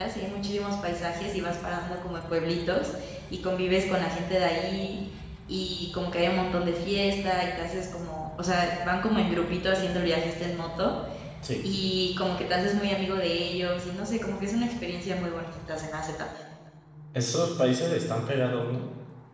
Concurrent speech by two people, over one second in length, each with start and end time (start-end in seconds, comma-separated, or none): none